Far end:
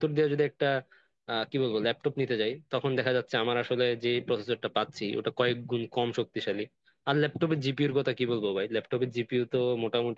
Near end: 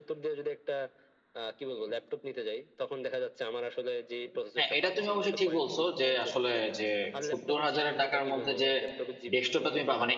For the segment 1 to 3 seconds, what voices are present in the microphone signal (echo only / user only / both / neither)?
echo only